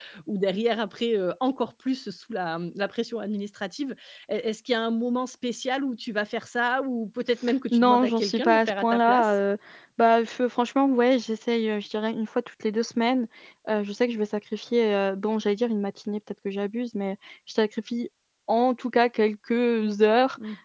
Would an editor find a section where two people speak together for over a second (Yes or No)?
Yes